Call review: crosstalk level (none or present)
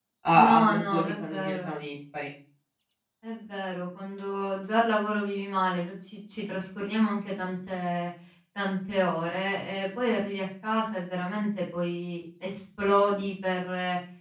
present